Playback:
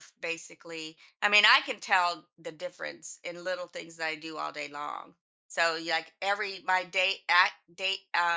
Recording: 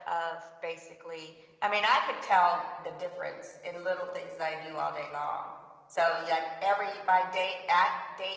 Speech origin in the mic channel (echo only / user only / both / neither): echo only